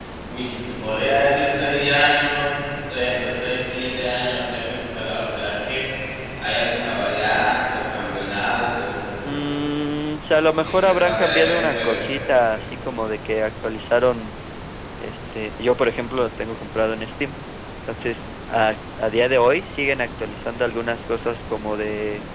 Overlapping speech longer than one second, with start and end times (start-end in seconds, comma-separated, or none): 10.5-12.0